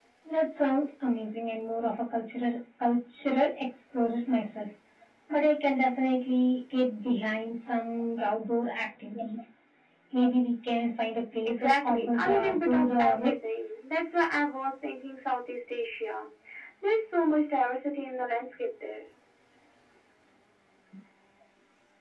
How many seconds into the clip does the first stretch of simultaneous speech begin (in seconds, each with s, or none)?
11.4 s